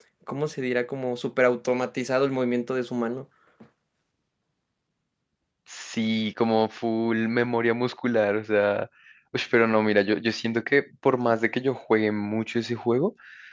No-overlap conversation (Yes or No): Yes